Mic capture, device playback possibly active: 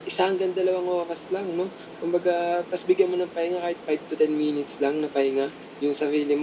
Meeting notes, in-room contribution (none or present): none